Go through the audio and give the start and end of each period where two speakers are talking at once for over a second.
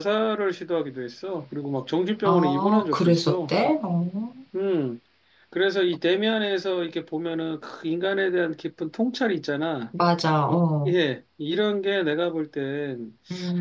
2.2-3.5

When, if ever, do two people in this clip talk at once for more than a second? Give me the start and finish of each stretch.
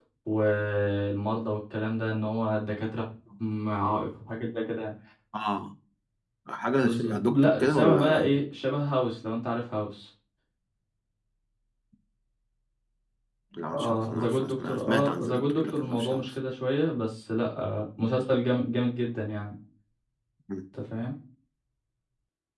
6.8-8.4, 13.7-16.2

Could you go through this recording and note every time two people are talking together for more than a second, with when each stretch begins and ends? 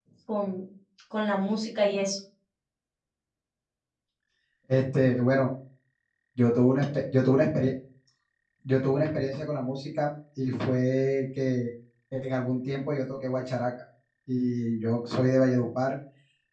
none

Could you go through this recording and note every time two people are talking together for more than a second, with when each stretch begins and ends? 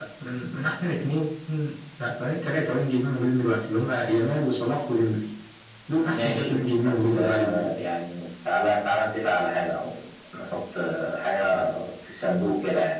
6.0-7.8

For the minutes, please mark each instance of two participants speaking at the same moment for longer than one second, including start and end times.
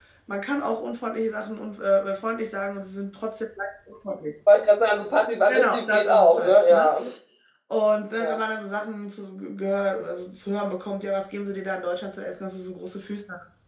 5.5-6.9

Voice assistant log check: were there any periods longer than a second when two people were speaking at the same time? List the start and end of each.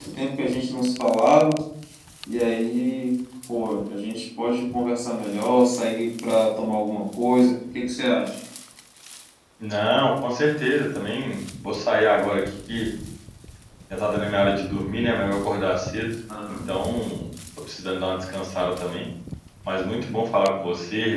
none

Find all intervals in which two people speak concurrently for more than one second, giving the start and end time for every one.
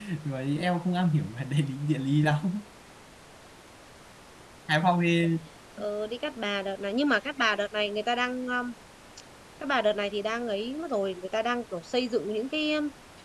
none

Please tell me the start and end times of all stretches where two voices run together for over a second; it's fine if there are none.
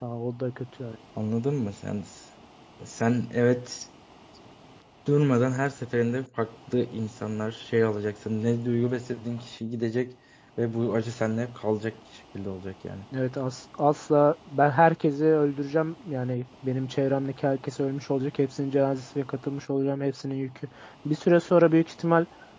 none

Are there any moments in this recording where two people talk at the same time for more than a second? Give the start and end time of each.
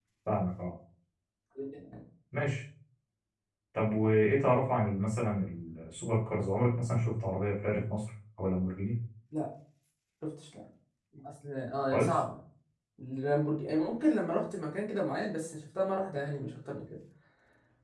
none

